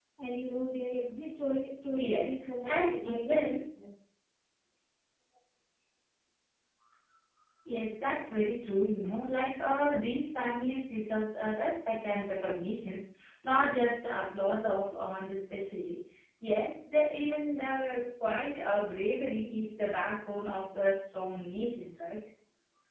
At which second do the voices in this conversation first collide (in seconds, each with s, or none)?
1.9 s